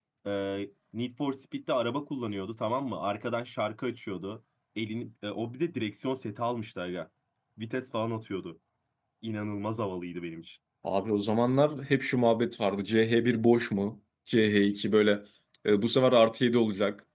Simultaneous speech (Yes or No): No